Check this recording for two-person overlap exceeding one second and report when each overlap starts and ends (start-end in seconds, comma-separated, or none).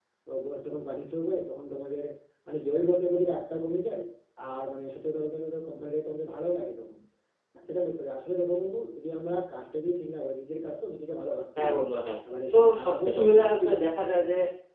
12.5-13.8